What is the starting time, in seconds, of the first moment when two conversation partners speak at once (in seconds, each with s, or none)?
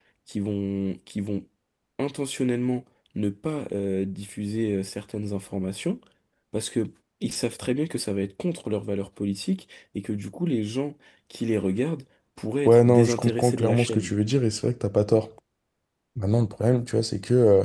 12.6 s